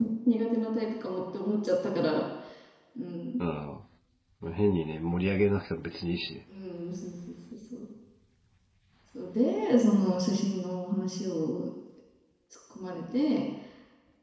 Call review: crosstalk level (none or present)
none